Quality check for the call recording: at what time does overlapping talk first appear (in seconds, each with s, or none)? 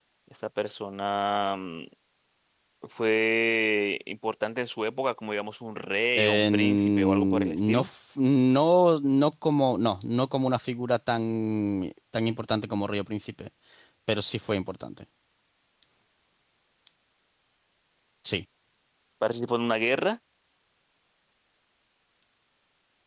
6.2 s